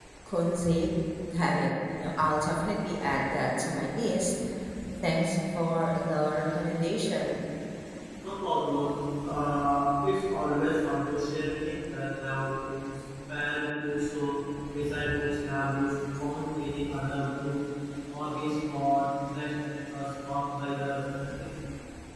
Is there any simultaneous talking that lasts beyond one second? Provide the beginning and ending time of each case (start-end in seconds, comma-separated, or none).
none